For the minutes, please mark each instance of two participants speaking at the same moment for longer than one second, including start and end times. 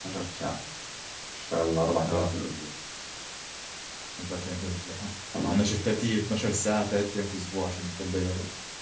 none

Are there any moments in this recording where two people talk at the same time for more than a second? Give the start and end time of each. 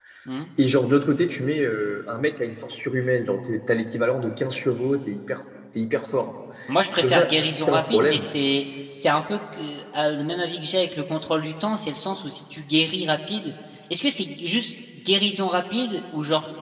7.0-8.3

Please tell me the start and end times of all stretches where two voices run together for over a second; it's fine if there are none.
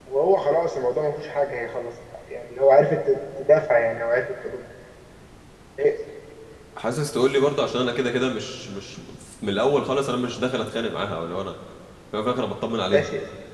none

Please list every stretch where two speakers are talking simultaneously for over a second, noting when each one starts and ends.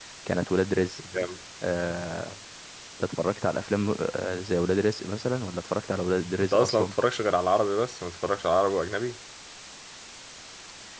none

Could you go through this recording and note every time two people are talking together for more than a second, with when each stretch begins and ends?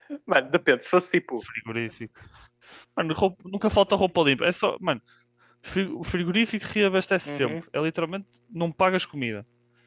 none

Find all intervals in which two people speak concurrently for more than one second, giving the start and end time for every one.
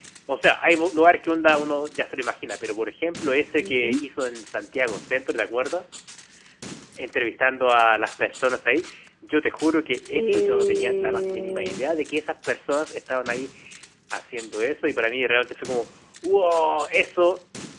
10.1-11.8

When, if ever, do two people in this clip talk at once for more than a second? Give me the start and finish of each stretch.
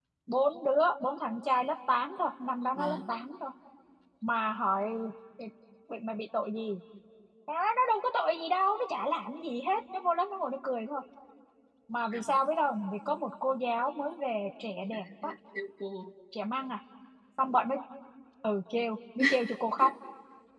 none

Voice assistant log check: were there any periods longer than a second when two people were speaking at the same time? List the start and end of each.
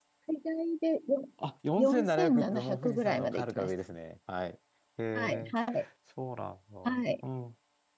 1.8-3.7

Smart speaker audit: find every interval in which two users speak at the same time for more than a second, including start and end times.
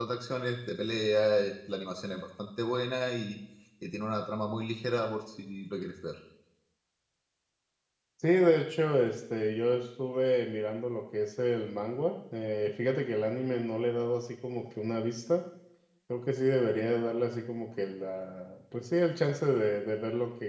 none

